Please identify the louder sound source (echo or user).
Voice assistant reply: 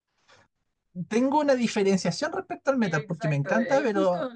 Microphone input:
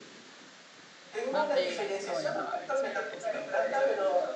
echo